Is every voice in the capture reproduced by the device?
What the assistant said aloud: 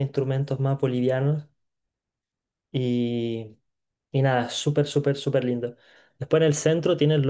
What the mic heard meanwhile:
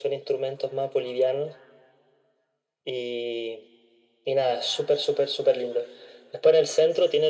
Yes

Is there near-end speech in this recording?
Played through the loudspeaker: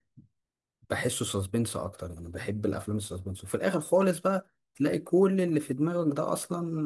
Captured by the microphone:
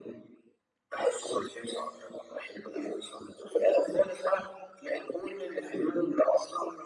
No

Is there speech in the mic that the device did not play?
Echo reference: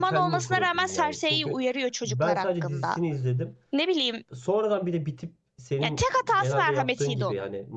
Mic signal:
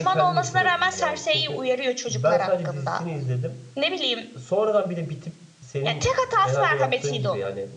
No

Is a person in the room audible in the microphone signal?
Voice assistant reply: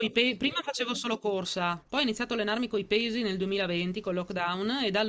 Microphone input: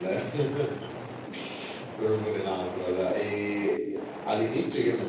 Yes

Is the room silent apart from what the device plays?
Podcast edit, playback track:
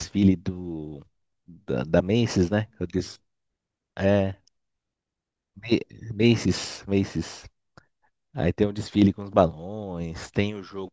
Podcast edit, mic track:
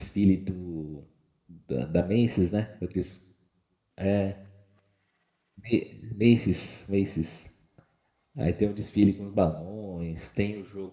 Yes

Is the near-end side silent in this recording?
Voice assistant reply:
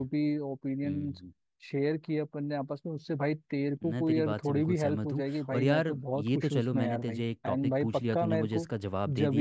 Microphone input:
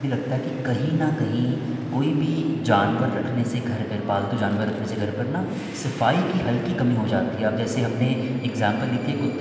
No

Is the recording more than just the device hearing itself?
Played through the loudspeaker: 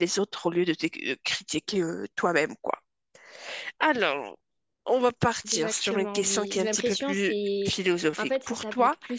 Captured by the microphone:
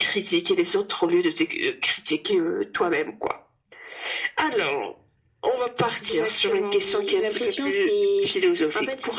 No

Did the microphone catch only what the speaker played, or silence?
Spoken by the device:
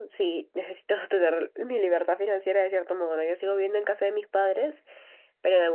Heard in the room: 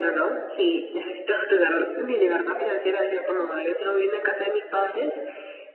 Yes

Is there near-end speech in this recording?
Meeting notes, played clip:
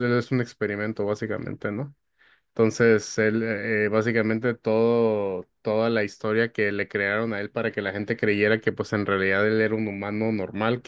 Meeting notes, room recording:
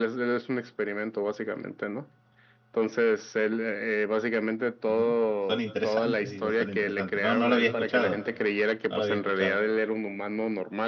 Yes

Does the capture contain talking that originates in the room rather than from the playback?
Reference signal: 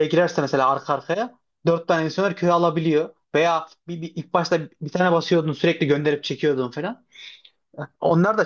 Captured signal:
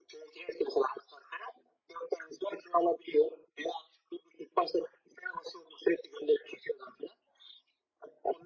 No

